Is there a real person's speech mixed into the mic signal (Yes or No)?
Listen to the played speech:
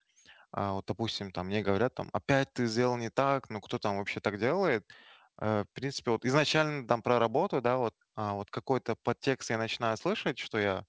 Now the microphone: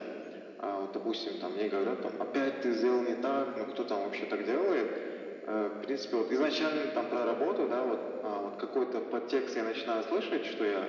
No